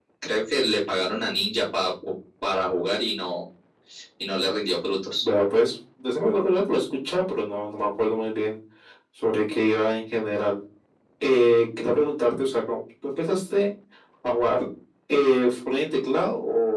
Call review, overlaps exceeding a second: none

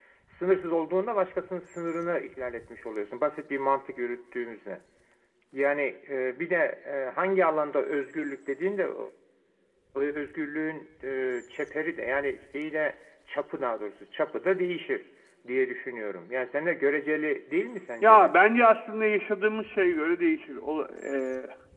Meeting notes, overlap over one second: none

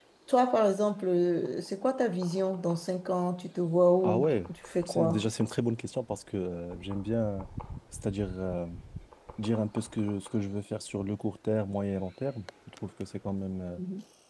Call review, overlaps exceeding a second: none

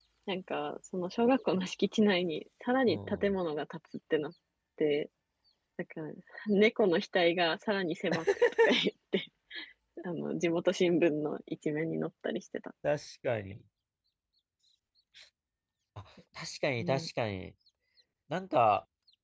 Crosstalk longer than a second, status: none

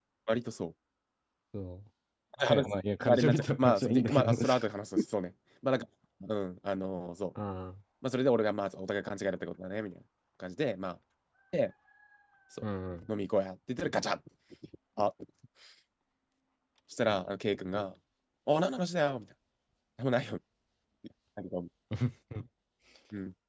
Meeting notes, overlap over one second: present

